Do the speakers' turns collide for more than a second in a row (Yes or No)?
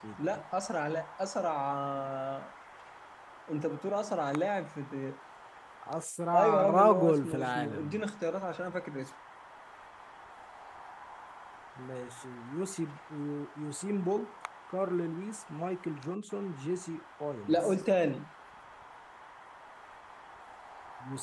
Yes